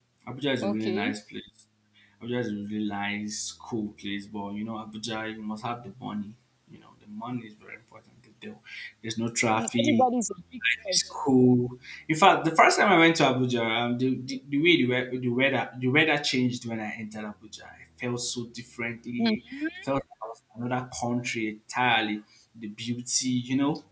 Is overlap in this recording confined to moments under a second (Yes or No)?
Yes